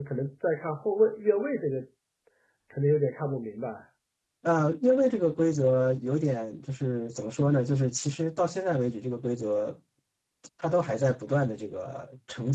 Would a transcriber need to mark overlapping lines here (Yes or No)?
No